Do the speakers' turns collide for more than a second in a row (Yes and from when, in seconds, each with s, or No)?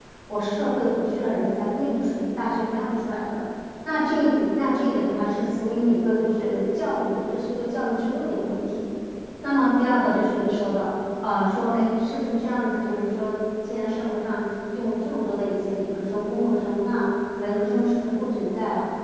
No